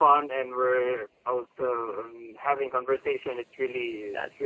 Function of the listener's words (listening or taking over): listening